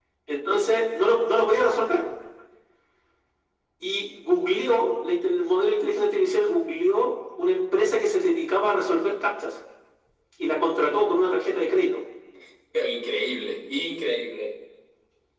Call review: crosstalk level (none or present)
none